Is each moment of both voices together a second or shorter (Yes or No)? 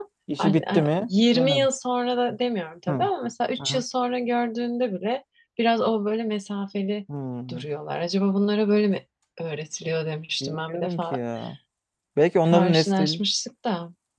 No